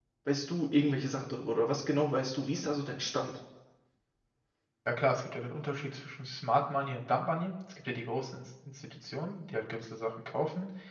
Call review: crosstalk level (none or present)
none